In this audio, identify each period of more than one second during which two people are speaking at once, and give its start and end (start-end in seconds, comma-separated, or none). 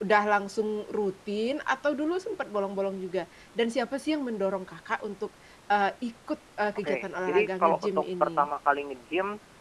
6.8-8.5